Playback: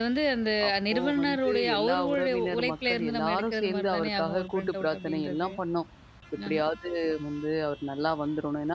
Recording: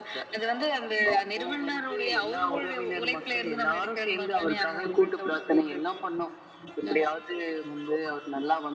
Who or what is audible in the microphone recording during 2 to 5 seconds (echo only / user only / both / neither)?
echo only